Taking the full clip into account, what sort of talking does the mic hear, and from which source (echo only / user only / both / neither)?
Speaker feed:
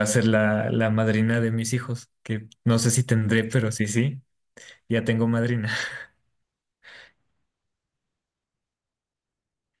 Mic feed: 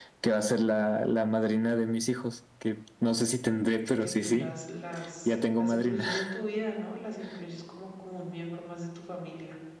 both